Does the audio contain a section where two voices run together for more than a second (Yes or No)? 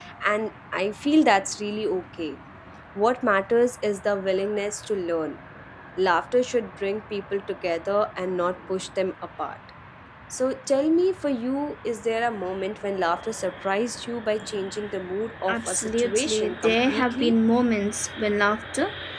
Yes